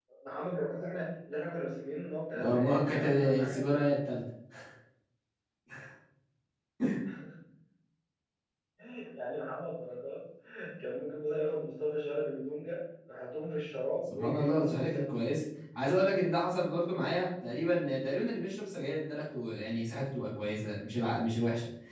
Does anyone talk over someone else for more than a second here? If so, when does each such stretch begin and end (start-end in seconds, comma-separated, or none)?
2.3-3.6, 14.1-15.3